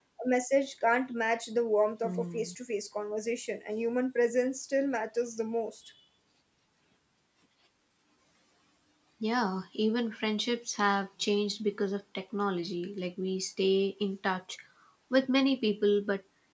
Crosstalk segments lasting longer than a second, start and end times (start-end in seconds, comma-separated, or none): none